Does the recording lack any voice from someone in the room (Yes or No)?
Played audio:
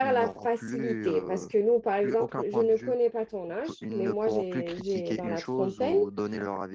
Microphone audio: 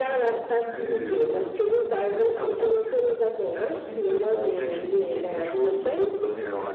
Yes